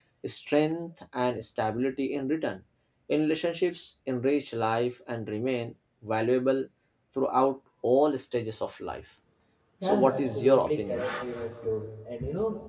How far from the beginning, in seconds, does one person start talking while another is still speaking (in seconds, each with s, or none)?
9.8 s